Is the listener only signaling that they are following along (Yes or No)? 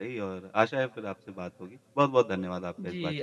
No